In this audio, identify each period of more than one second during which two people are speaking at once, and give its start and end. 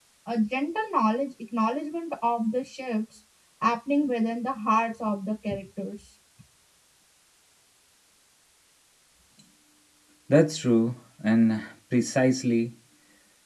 none

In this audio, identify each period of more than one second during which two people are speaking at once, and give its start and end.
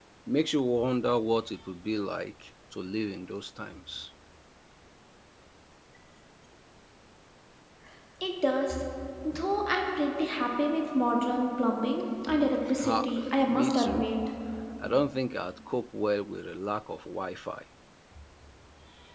12.8-14.1

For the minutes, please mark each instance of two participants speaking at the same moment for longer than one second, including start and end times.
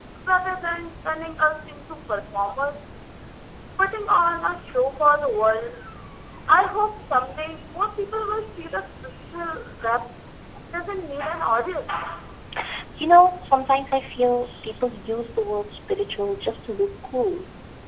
none

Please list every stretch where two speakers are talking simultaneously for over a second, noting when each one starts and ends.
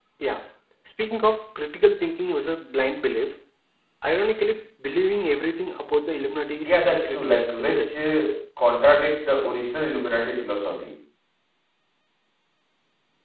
6.6-7.9

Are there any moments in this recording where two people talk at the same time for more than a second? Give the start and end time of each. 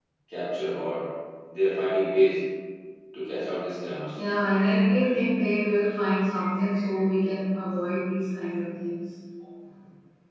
none

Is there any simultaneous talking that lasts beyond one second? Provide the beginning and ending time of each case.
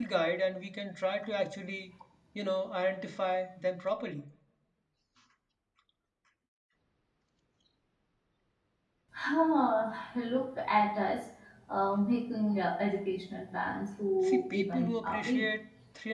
14.2-15.5

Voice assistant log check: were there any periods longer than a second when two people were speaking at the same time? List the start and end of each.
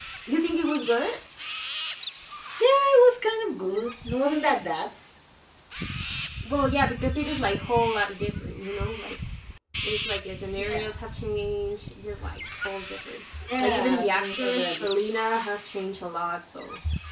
13.6-14.8

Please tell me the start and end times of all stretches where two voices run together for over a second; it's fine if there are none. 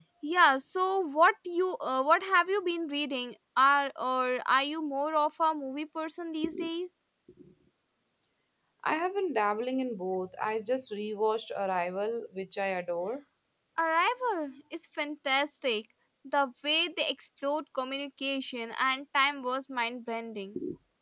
none

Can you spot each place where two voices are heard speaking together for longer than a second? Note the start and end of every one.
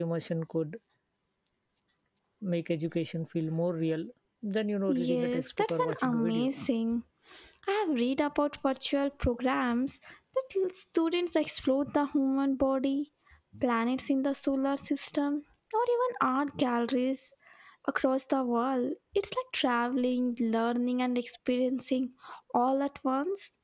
4.9-6.5

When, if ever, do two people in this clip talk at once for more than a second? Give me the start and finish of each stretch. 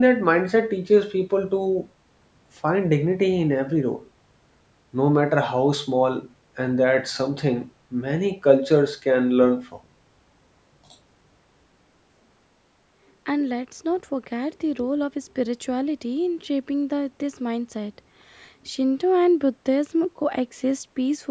none

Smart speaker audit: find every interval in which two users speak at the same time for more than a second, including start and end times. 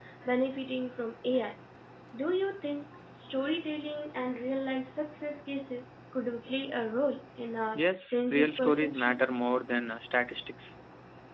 7.7-9.2

